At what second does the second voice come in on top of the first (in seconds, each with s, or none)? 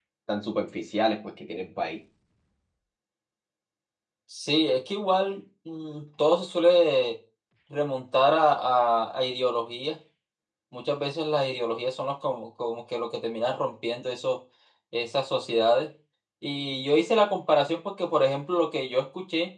none